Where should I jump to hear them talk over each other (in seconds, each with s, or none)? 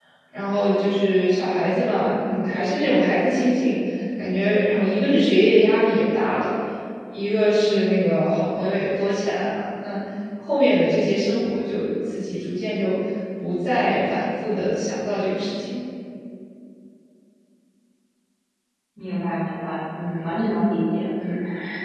none